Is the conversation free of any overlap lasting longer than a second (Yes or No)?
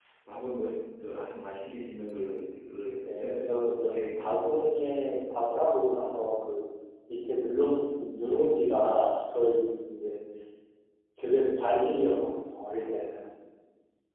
No